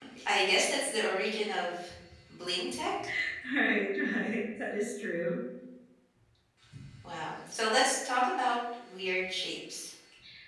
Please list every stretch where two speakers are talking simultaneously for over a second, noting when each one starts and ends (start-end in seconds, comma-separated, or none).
none